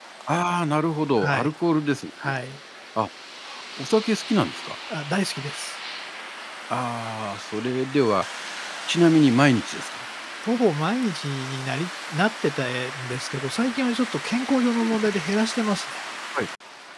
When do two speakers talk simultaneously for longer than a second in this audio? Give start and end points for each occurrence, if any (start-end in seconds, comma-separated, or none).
none